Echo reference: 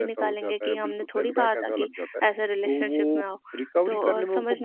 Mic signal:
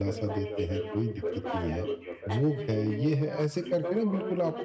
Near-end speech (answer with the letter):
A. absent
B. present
B